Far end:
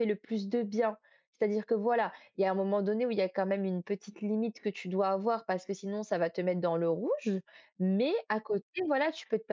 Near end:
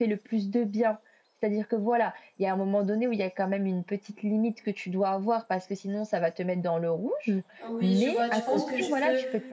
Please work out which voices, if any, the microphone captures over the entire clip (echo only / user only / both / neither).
both